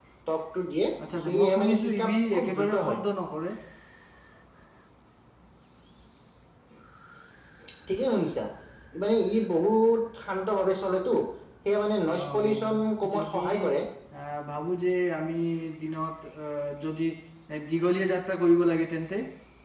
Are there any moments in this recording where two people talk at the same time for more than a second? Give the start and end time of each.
1.2-3.0, 12.2-13.7

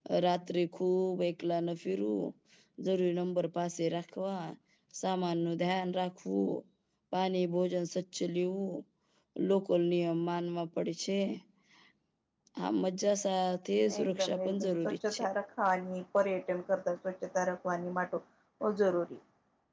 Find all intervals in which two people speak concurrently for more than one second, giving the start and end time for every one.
14.0-15.2

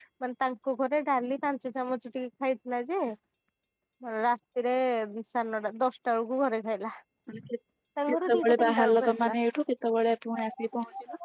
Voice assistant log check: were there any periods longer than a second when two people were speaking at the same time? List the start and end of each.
8.1-9.3

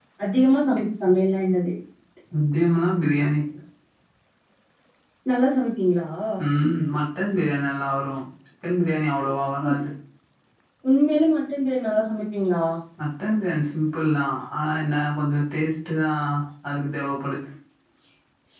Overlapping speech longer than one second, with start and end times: none

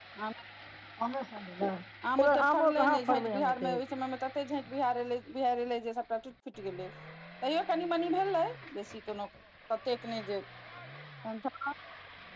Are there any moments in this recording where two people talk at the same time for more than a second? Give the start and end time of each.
2.1-3.8

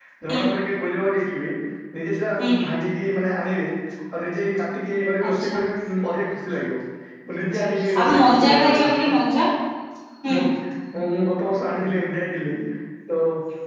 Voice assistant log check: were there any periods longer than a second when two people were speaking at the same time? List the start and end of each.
7.5-8.9

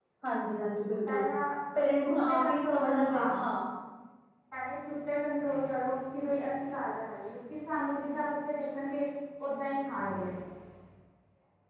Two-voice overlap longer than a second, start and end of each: 2.1-3.4

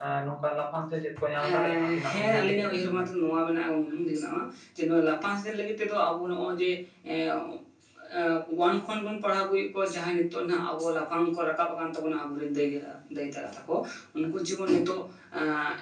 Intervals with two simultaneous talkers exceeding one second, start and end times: 1.5-3.1

